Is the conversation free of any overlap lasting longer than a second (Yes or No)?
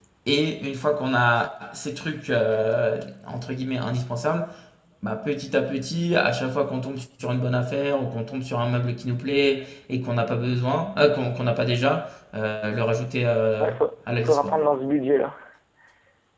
Yes